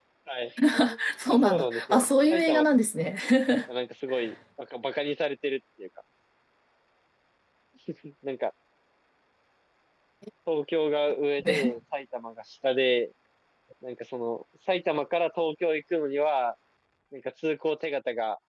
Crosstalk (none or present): present